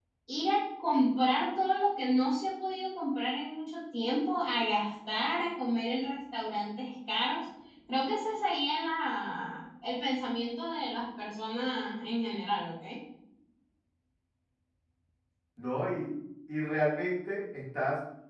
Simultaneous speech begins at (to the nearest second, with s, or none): none